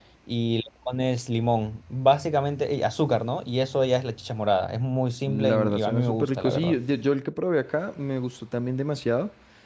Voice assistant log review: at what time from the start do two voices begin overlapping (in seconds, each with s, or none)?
5.3 s